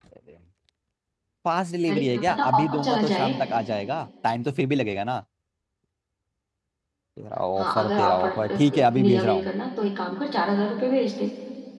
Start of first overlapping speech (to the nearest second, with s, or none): 2 s